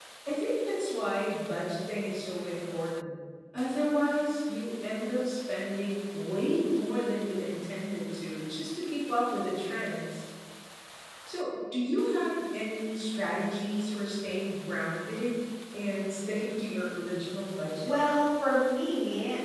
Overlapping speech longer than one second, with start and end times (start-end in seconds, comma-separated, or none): none